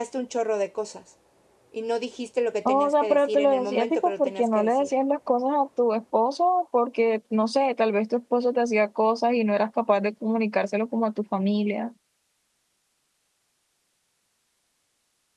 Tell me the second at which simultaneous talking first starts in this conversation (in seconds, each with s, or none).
2.6 s